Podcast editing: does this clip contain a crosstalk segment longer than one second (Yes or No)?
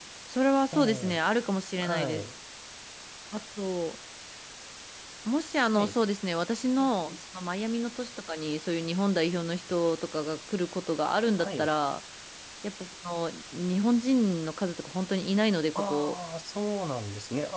No